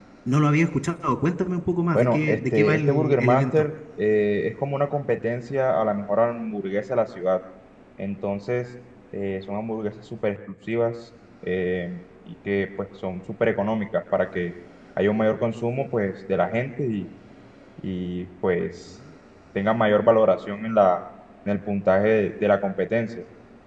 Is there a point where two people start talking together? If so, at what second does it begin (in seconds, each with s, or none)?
1.9 s